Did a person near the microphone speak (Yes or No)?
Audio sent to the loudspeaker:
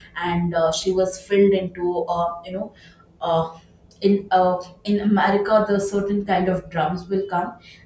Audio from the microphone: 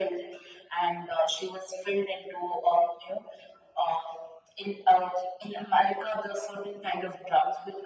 No